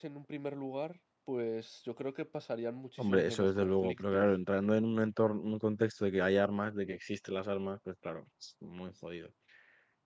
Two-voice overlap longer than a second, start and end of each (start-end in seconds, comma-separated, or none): 3.0-4.3